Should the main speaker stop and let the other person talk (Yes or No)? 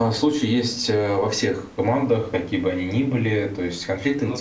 No